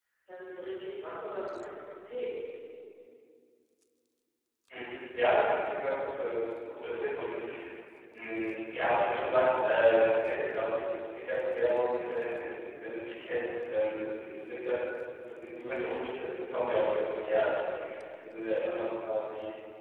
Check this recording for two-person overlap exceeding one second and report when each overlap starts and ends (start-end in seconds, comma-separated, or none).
none